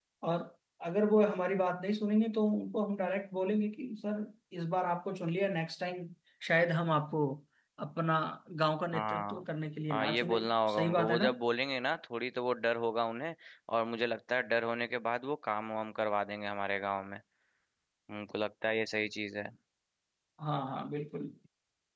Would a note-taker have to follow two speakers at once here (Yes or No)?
Yes